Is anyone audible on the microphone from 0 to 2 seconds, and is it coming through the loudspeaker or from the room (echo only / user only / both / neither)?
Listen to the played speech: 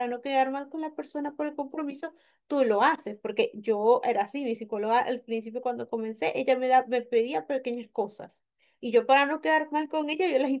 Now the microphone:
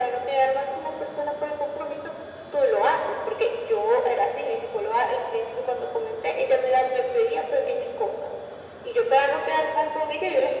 echo only